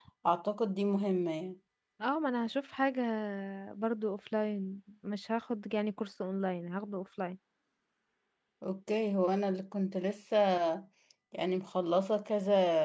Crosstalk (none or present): none